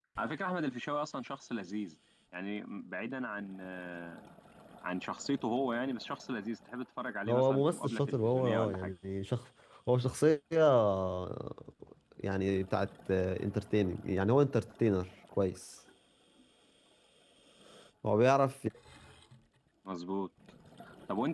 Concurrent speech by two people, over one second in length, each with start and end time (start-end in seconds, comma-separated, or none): 7.3-8.9